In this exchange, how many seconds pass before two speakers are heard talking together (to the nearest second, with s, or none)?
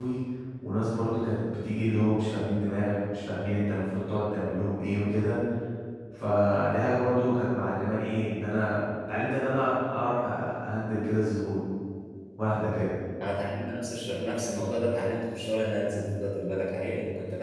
none